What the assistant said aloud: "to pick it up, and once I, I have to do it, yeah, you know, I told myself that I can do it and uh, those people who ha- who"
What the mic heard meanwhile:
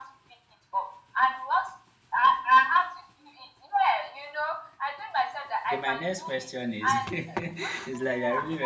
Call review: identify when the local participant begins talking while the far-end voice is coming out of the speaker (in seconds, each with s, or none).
5.7 s